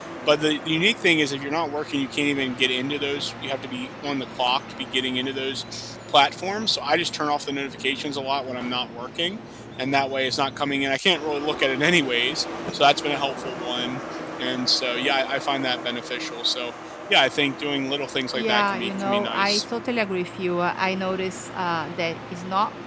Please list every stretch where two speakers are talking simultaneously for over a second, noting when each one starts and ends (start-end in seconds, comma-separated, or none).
18.4-19.6